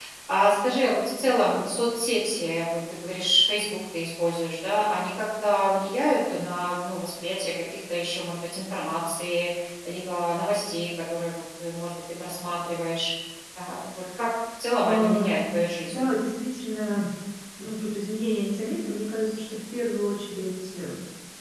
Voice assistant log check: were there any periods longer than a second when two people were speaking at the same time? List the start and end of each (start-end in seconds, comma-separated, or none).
14.8-16.1